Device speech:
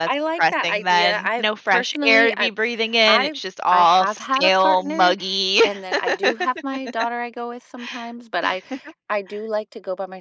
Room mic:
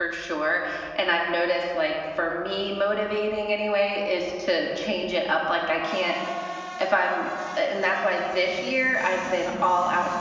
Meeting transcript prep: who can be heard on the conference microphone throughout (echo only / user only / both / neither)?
user only